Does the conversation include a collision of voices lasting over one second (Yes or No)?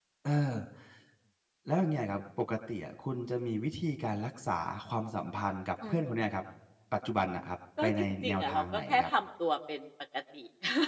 Yes